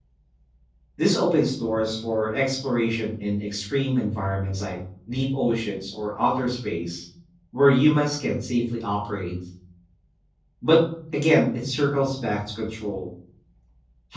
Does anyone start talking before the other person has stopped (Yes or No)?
No